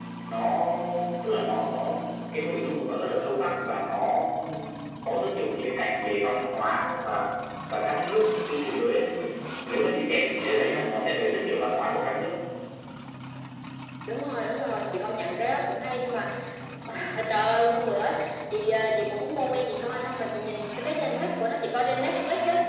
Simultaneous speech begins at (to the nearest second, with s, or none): none